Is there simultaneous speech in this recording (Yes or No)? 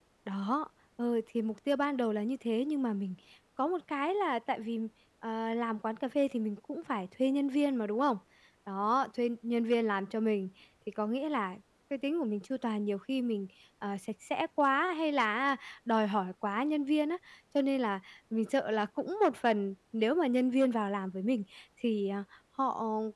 No